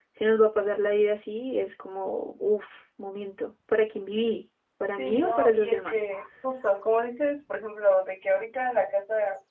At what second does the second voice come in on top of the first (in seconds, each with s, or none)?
4.9 s